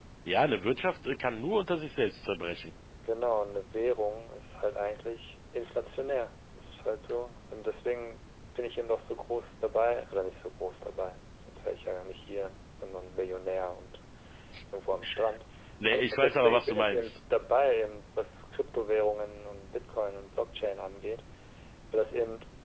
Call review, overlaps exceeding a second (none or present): present